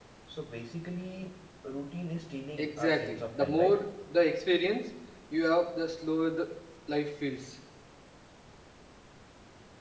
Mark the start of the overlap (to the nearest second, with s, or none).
3 s